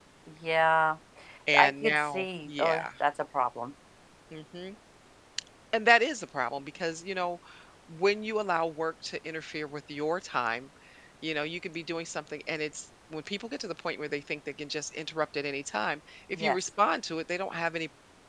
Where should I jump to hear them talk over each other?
1.6 s

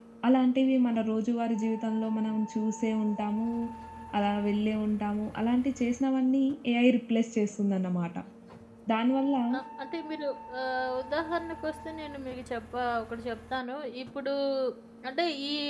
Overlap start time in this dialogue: none

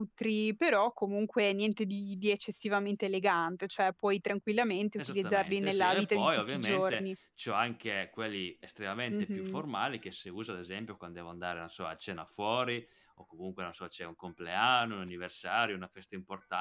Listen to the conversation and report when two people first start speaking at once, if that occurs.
5.0 s

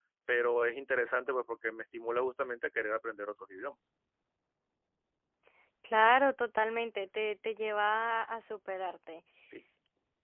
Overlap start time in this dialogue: none

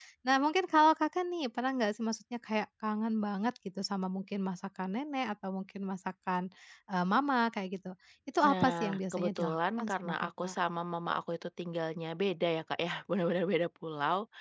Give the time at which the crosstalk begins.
8.4 s

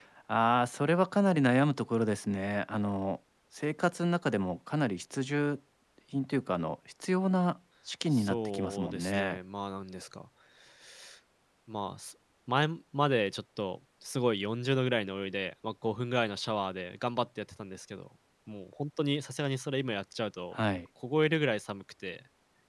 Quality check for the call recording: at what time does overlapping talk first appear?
8.1 s

